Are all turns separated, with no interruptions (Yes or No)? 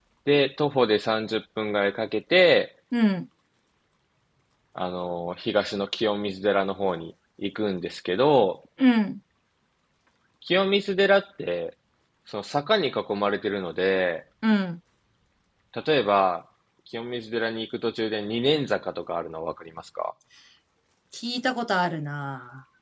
Yes